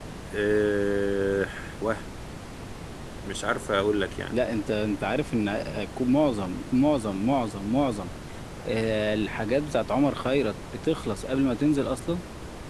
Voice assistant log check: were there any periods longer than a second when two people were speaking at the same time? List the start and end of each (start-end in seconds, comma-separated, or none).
none